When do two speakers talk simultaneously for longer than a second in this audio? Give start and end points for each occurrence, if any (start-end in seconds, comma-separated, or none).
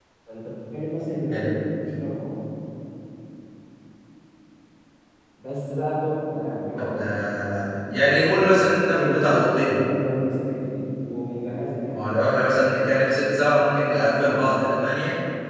none